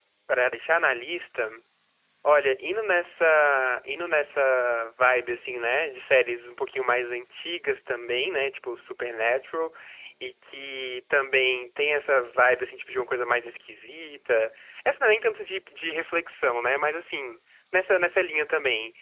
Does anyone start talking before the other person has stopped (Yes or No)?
No